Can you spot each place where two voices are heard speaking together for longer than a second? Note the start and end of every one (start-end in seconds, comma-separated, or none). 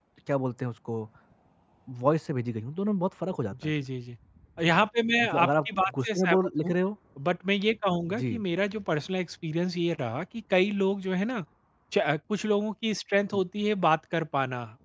5.2-6.7